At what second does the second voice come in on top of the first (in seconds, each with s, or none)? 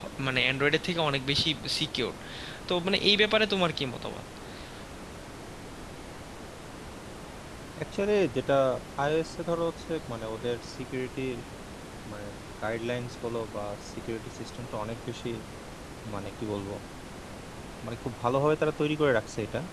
none